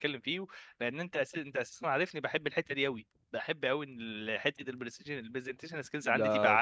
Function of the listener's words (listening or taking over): taking over